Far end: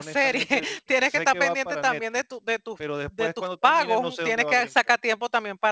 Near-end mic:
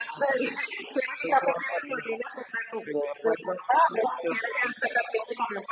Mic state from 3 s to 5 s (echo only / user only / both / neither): echo only